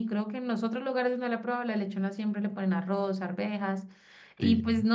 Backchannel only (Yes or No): Yes